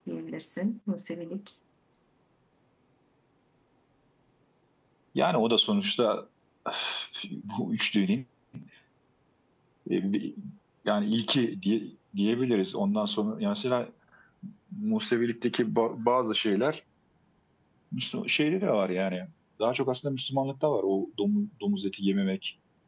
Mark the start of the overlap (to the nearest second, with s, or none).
none